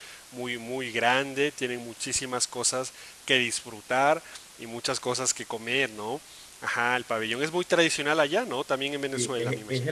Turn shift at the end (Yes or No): Yes